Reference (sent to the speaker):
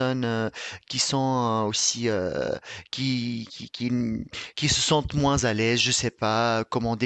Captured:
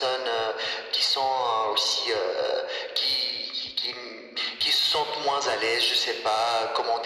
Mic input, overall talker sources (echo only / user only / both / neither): echo only